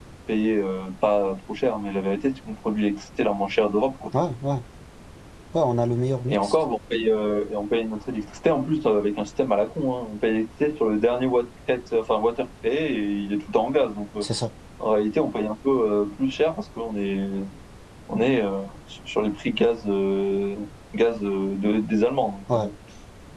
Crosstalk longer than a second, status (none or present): none